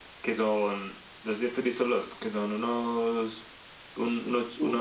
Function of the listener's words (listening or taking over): listening